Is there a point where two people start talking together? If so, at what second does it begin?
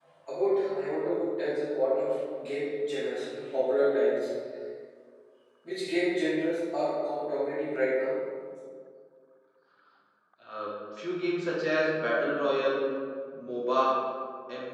none

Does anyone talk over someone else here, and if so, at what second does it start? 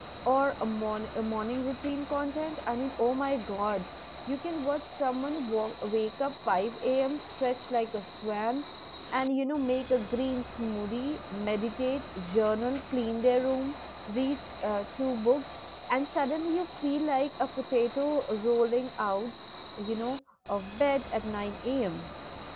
none

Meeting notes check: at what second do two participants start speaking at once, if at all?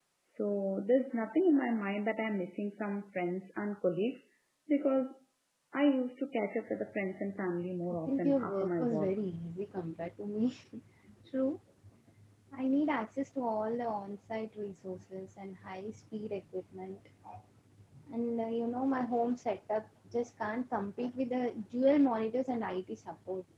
7.9 s

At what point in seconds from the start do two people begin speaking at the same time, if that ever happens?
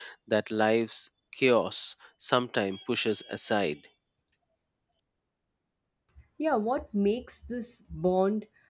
none

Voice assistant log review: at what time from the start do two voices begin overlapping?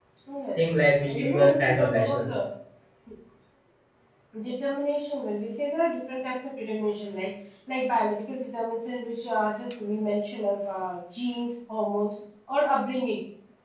1.1 s

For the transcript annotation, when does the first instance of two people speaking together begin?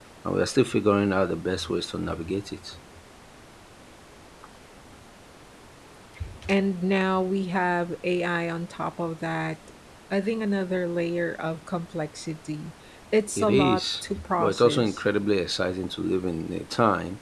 13.4 s

